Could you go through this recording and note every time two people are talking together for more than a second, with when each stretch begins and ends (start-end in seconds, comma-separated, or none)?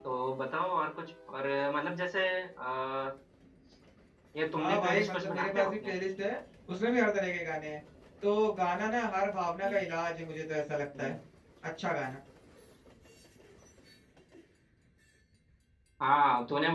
4.6-5.9